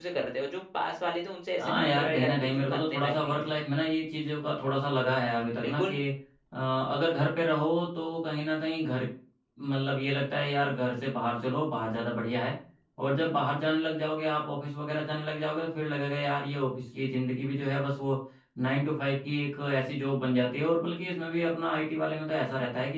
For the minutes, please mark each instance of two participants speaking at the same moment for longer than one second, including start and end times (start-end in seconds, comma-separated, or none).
1.6-3.5